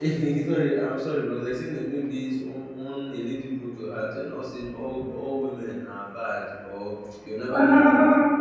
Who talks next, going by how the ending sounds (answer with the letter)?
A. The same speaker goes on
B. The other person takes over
A